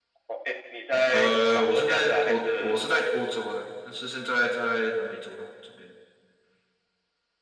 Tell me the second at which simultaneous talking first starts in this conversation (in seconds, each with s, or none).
1.1 s